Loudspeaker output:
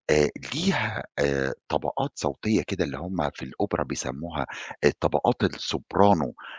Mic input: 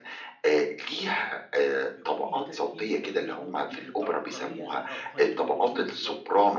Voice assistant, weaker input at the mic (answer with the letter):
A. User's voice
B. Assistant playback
A